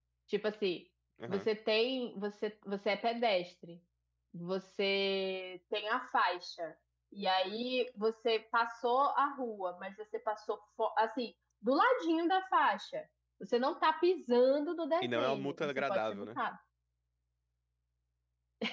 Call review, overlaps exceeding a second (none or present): present